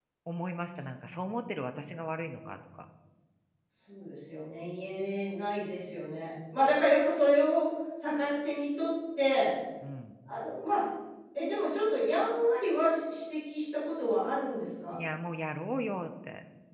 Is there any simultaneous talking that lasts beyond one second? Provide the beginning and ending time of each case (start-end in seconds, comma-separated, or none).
none